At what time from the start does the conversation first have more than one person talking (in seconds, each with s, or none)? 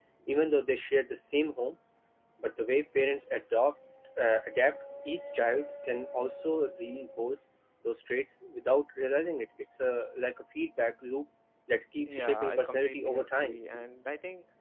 12.1 s